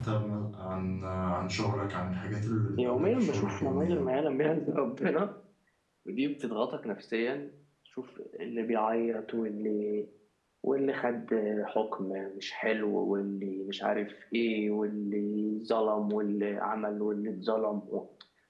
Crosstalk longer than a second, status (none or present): present